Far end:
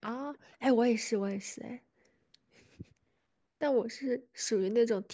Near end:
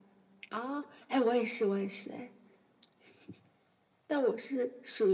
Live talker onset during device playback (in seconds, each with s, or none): none